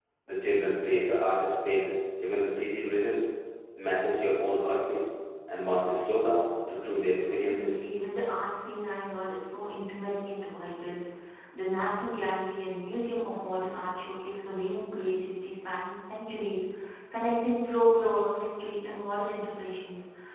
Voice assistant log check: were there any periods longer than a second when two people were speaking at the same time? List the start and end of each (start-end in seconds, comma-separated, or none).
none